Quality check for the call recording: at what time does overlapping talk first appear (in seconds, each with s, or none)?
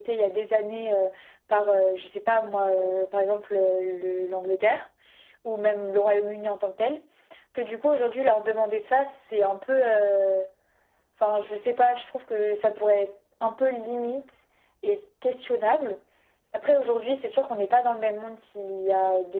none